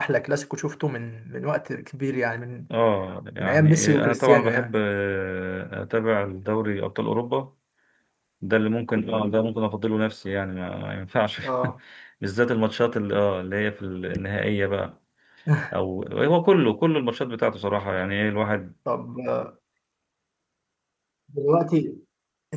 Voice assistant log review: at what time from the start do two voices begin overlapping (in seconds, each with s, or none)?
3.4 s